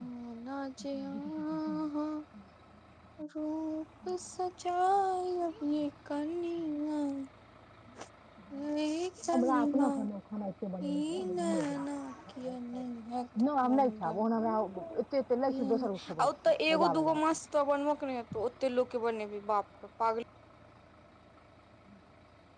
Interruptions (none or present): present